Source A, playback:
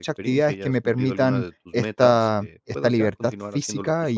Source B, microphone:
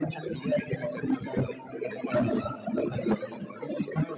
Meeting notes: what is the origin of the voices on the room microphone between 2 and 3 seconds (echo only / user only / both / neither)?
echo only